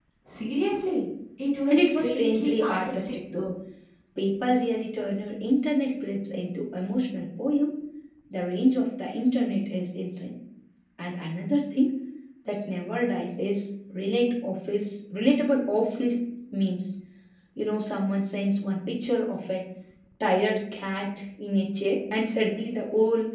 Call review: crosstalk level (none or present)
present